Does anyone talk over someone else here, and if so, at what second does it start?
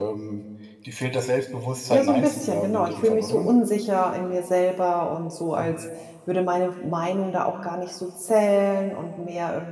1.9 s

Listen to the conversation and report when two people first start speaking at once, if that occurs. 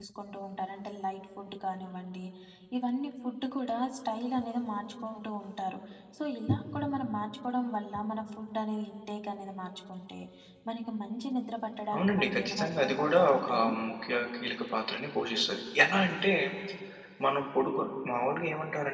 11.9 s

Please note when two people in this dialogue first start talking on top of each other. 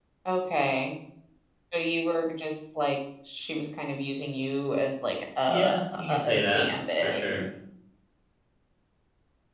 5.5 s

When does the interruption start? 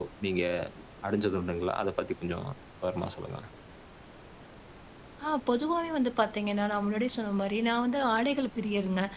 none

